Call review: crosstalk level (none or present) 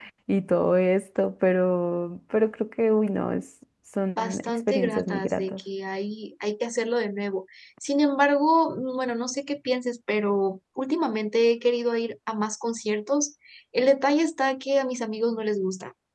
present